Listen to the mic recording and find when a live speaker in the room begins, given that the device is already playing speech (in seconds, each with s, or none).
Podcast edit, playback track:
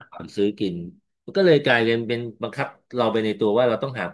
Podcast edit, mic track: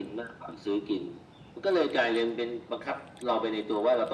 none